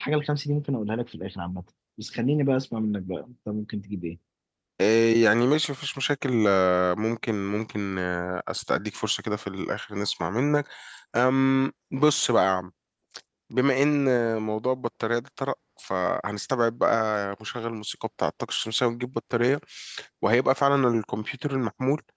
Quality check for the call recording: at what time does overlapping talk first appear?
none

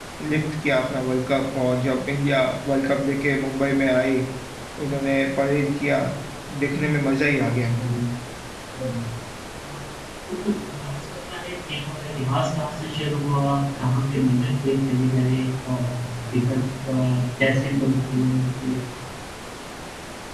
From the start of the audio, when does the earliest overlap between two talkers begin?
none

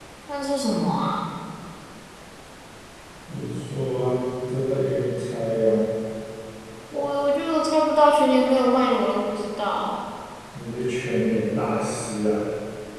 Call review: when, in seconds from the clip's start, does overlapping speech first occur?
none

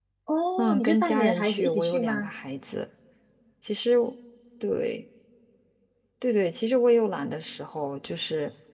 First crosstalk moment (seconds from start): 1 s

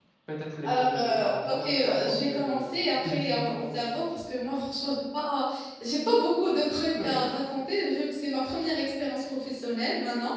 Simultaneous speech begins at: 1 s

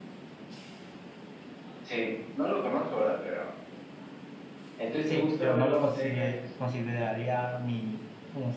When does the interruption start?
5 s

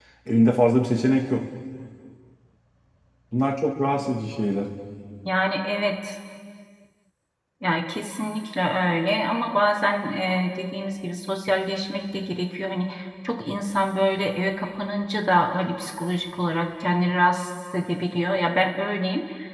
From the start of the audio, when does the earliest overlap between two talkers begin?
none

